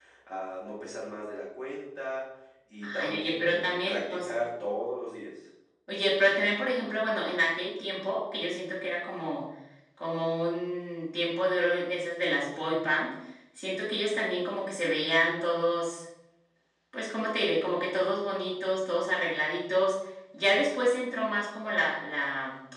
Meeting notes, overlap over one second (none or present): present